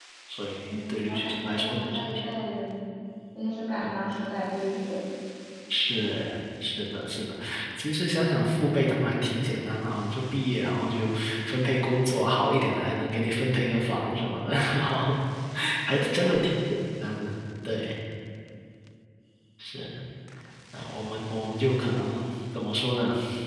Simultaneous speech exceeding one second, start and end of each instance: 0.6-2.1

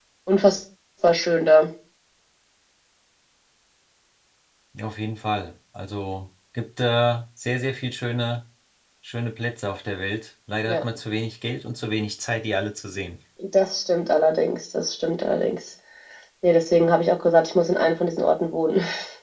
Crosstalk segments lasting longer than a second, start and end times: none

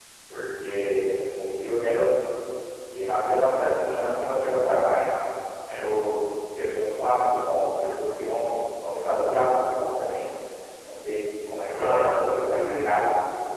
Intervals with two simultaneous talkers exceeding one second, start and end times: 11.8-13.0

